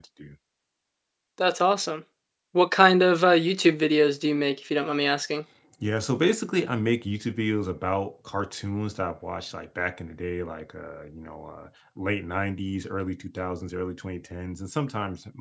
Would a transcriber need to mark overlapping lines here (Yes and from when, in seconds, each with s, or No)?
No